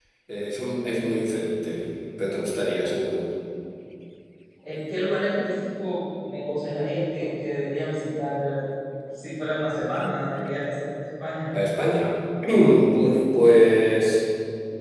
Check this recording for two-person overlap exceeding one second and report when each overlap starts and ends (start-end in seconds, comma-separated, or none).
none